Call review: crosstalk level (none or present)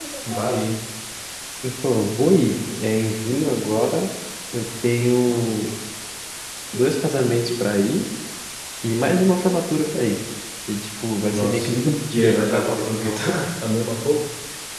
present